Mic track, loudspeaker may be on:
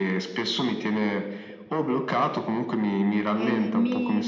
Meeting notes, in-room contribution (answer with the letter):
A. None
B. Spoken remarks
B